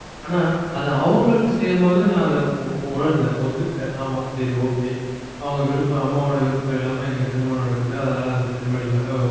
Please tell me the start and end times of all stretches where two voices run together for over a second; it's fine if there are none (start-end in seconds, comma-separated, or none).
none